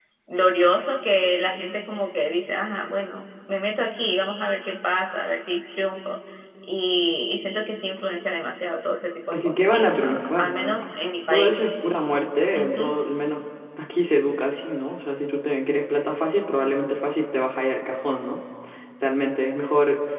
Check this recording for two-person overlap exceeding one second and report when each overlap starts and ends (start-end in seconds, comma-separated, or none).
9.3-10.8